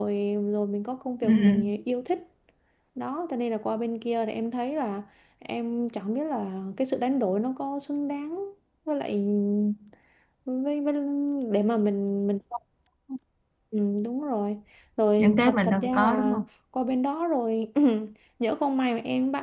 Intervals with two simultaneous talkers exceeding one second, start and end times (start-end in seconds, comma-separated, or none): 15.2-16.4